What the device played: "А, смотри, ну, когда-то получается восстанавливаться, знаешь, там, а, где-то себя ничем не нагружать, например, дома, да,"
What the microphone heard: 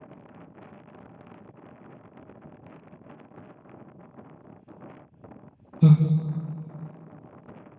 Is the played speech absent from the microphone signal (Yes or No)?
Yes